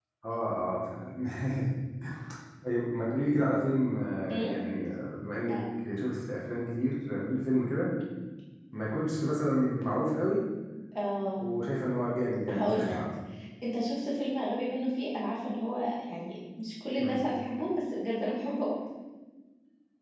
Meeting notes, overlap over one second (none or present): none